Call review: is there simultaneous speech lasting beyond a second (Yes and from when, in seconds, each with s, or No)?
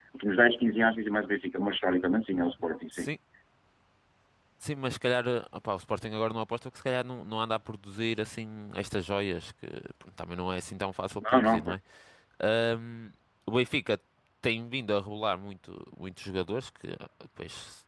No